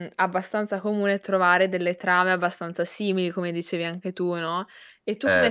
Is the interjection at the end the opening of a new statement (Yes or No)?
No